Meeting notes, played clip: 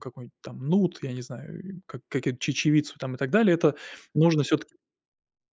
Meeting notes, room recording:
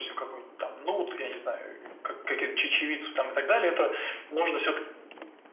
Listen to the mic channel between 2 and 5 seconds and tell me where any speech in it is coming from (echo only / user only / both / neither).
echo only